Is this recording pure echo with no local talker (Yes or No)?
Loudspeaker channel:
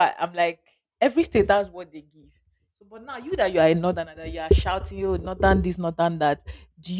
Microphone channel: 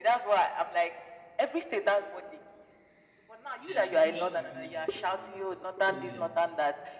No